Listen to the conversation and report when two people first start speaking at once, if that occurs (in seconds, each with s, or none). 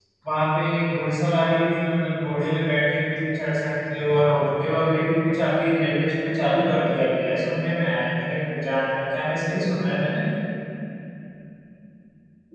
none